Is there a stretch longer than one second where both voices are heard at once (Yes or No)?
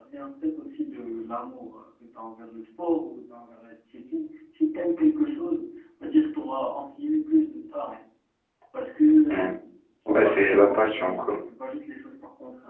Yes